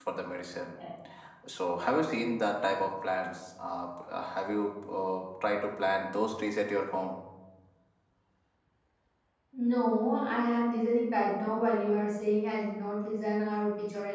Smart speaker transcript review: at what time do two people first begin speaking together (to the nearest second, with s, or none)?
none